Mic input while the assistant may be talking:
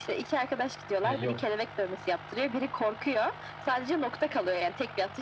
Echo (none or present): present